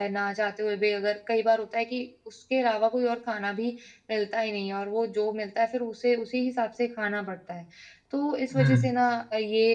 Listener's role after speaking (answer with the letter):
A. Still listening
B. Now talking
A